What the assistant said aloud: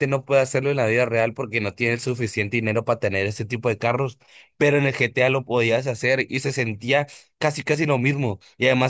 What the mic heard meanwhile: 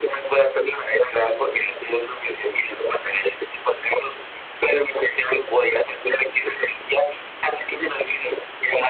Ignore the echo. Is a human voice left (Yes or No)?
No